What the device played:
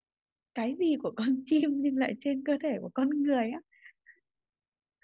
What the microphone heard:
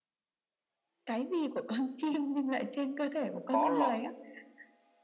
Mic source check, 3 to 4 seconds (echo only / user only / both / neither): both